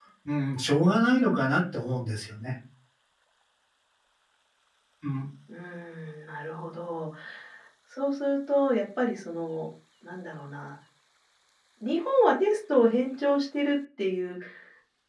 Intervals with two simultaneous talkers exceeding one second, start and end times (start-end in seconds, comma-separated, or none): none